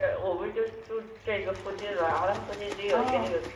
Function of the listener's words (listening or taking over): listening